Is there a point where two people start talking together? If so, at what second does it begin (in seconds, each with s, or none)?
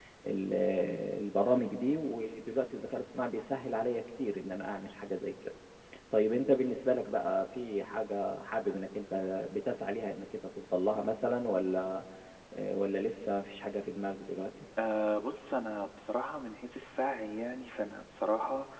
none